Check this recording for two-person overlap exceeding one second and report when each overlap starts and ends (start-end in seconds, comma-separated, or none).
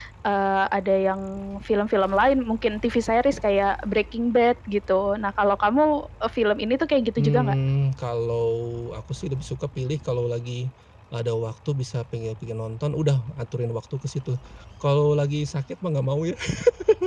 none